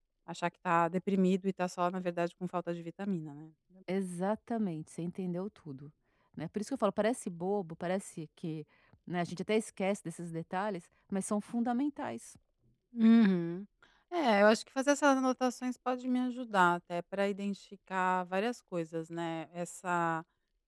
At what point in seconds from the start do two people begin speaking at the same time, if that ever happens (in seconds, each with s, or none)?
none